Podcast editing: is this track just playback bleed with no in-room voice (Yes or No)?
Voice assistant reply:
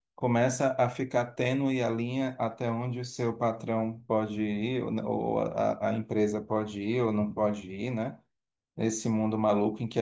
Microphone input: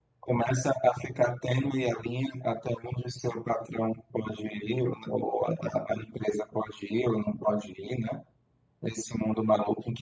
Yes